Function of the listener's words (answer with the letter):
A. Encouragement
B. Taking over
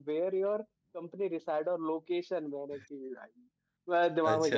A